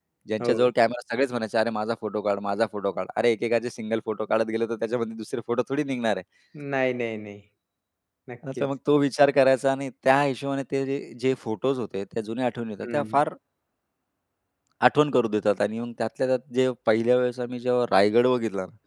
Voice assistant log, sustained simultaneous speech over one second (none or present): none